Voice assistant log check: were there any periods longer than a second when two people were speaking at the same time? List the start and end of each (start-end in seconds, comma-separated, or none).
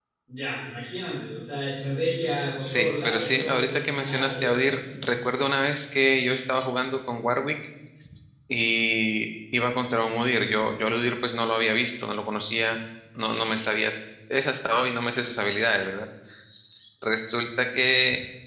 2.6-5.0